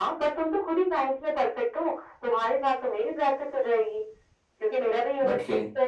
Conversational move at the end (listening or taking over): listening